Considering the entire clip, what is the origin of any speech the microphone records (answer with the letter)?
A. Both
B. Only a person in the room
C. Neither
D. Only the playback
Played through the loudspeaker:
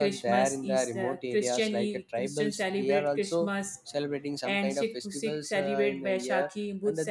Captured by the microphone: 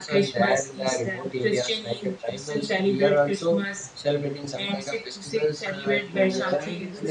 A